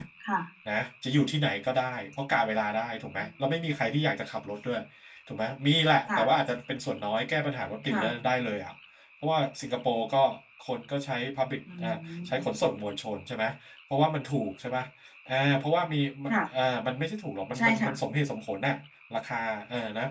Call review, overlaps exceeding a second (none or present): none